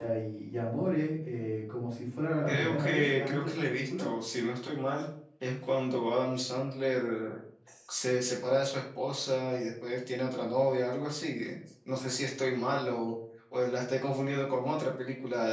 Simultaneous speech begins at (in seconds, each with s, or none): 2.5 s